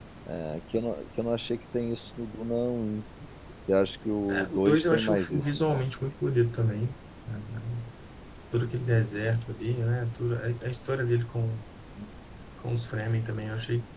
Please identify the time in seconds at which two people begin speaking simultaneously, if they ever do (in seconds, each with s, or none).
4.3 s